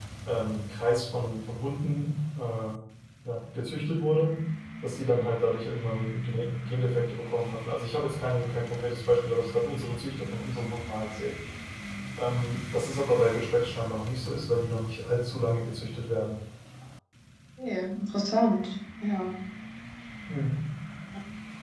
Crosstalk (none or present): none